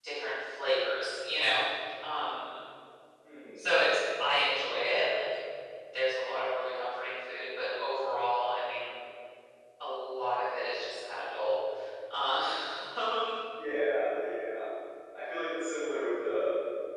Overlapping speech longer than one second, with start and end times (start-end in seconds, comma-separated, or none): none